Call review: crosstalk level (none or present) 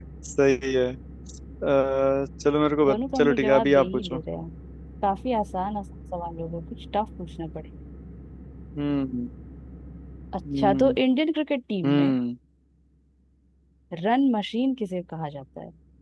present